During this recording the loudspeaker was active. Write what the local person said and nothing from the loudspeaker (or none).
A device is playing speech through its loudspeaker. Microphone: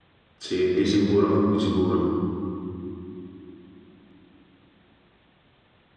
Sì, di sicuro, di sicuro.